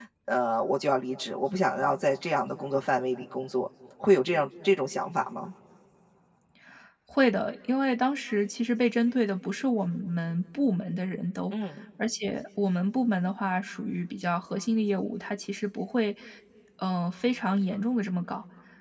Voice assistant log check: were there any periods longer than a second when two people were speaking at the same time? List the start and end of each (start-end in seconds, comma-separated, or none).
none